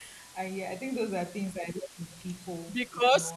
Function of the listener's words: taking over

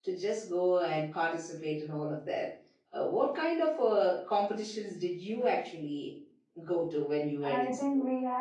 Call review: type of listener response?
taking over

